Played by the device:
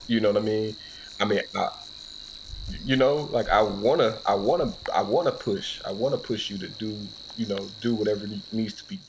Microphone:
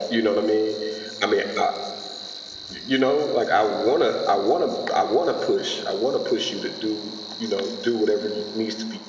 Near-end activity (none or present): none